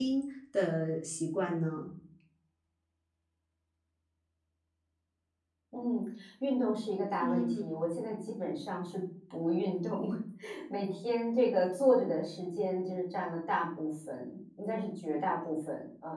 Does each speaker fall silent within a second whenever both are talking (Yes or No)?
Yes